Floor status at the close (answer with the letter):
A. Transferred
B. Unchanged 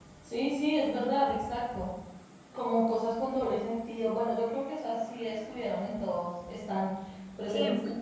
B